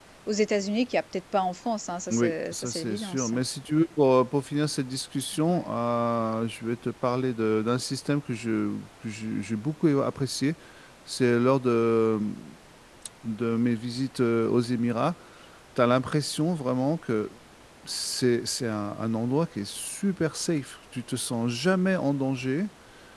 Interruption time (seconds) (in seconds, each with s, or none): 2.1 s